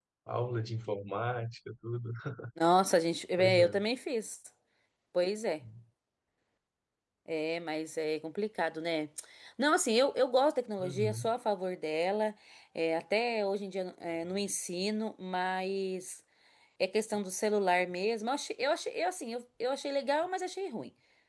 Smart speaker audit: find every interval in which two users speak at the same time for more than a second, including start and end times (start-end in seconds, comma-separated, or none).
none